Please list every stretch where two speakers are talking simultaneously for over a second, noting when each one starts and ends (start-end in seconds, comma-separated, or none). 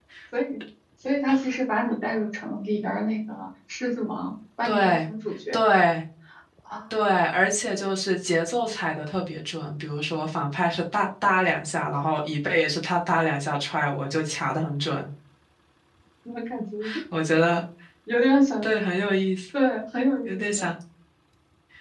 none